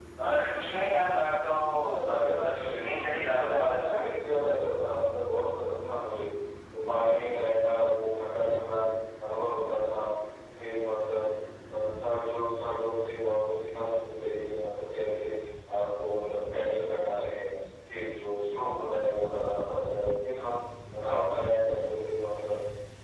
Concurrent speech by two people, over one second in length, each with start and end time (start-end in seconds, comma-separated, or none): 2.1-4.0